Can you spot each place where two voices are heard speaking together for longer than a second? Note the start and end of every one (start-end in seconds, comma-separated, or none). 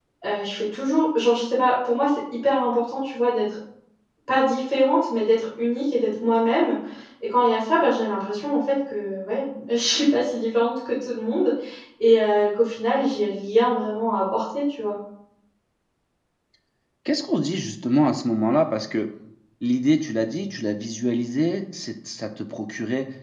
none